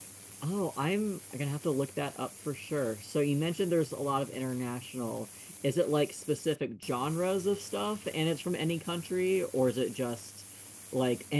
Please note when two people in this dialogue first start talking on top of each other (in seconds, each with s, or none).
none